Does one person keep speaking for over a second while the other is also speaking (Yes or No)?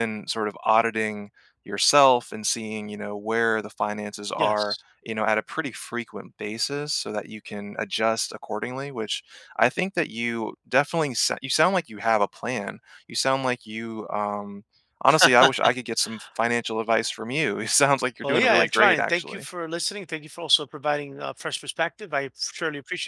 Yes